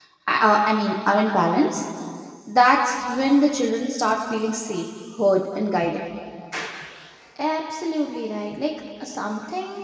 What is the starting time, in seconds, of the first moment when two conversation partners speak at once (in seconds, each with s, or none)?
none